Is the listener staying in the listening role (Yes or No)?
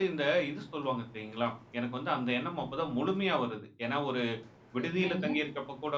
Yes